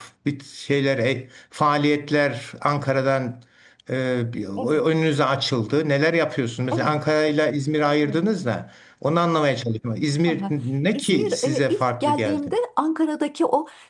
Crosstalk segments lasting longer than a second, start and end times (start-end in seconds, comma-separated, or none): 10.9-12.4